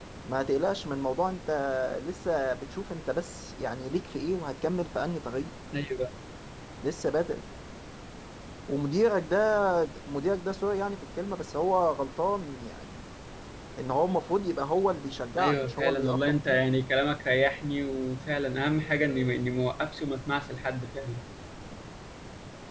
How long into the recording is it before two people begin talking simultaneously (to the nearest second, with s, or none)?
15 s